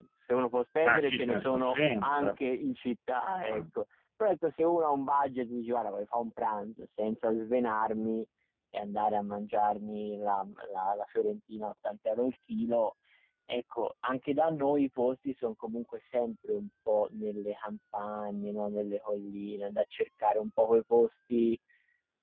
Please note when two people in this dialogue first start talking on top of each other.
0.8 s

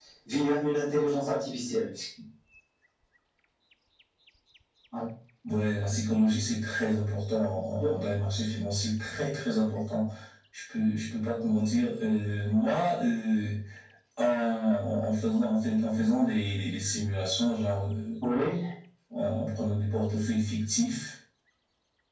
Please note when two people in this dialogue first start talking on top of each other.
none

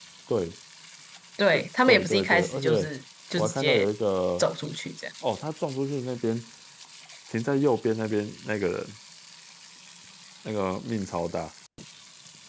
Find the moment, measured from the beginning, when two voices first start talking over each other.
1.5 s

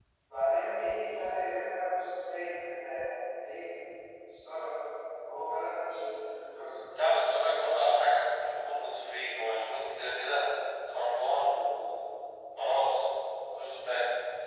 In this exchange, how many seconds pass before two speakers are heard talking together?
none

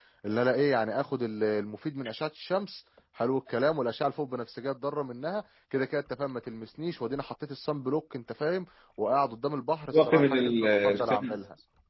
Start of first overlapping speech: 9.9 s

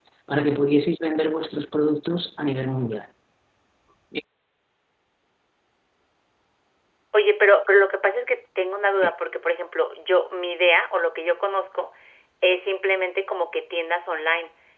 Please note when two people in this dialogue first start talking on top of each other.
none

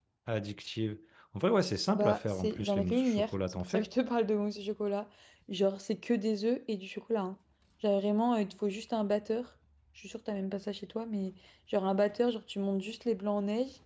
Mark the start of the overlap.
1.9 s

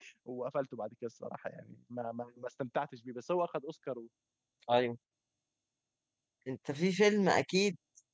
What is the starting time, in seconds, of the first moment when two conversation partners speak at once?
none

